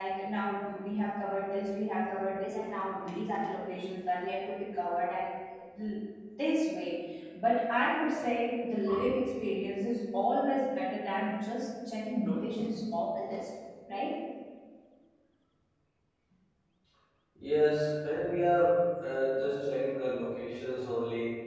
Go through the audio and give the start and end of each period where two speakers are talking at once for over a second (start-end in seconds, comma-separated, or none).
none